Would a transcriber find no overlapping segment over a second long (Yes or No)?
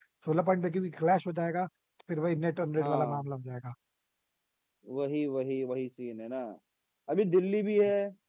Yes